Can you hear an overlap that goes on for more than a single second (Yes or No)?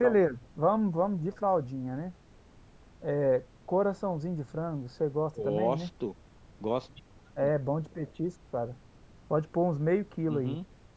No